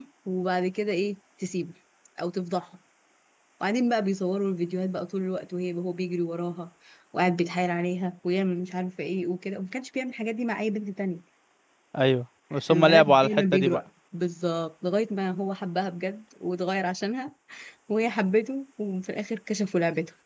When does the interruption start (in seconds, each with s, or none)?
12.5 s